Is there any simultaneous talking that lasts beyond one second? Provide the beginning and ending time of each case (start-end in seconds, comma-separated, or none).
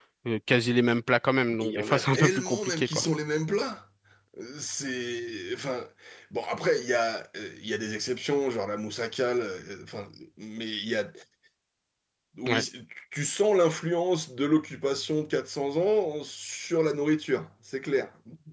1.6-3.0